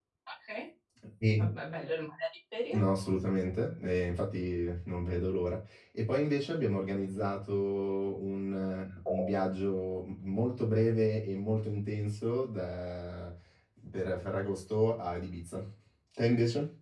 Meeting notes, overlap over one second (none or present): none